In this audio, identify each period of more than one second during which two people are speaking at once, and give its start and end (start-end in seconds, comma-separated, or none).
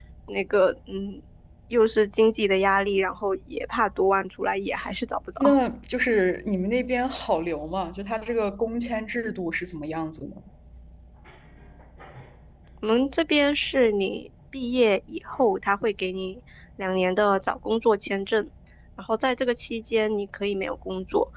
none